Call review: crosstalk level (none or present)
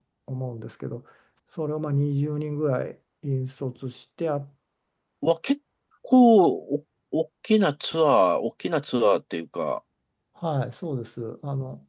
none